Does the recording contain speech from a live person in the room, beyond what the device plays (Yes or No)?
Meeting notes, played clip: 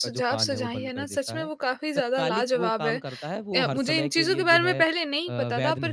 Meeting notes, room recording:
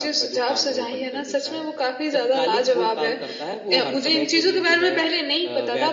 No